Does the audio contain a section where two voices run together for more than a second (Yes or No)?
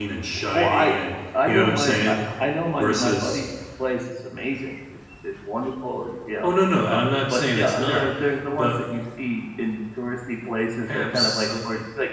Yes